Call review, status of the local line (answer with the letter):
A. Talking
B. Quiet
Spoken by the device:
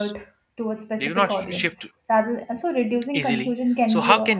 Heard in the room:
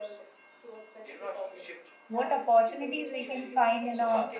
A